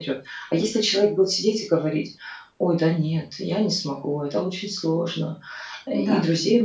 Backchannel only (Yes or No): Yes